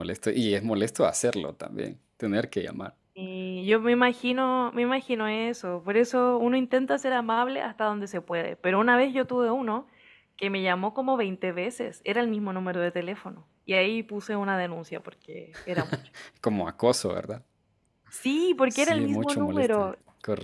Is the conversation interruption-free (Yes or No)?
No